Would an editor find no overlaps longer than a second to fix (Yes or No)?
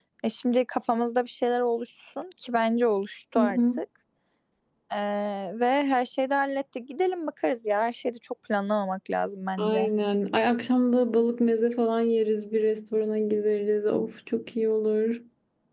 Yes